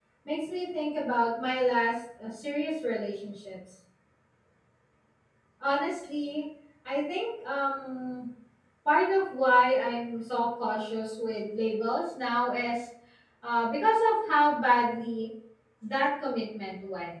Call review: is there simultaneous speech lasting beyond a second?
No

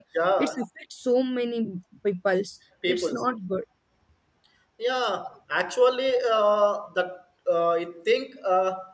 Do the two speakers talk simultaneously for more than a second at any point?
No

